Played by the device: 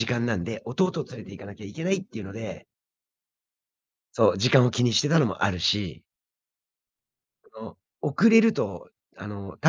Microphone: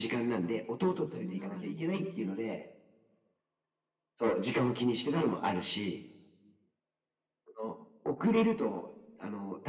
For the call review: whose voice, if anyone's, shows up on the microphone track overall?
both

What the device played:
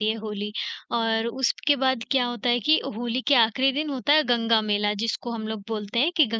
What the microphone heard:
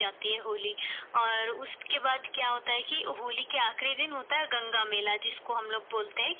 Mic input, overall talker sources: echo only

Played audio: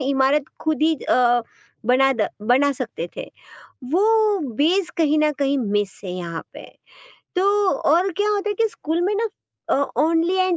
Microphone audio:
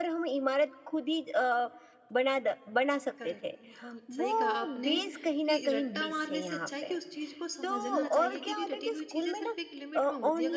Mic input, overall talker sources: both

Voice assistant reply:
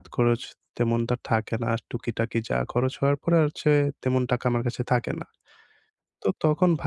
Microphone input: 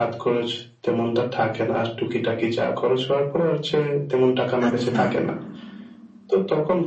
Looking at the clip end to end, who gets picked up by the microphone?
both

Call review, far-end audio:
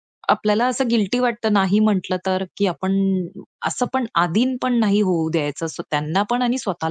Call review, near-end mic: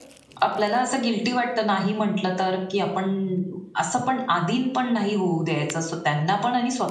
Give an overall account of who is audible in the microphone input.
echo only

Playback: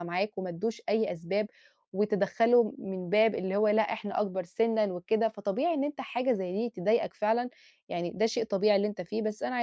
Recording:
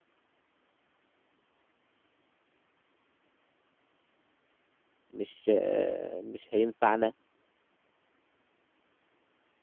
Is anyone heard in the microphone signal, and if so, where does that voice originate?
user only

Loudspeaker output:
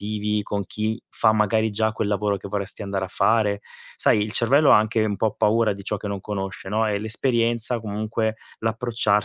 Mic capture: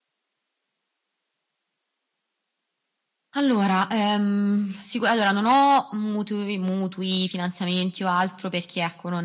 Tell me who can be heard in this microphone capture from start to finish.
user only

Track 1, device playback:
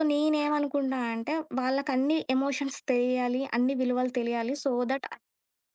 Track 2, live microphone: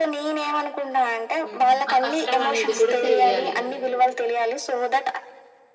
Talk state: both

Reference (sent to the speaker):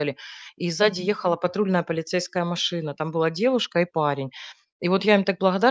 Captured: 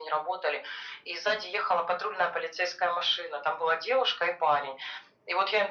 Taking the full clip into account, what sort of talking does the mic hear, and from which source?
echo only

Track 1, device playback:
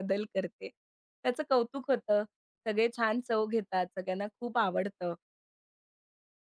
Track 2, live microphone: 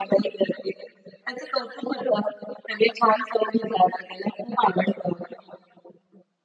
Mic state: echo only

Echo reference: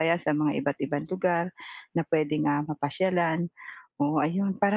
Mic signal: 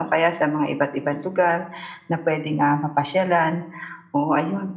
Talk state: echo only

